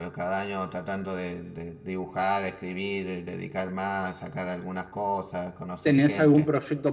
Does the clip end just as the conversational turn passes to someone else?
Yes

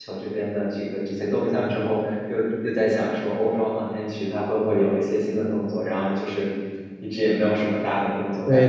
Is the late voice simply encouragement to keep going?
No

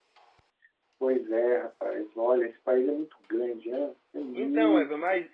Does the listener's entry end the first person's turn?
Yes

